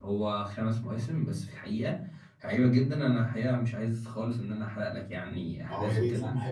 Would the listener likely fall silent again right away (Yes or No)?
No